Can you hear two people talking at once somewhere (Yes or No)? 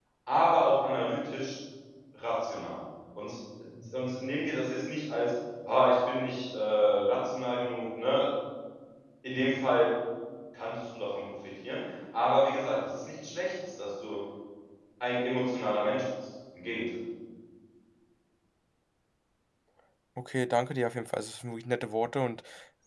No